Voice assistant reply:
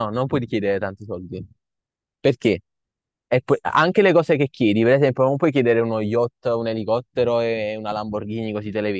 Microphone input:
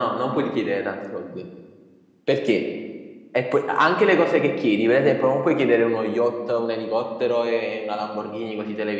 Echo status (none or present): present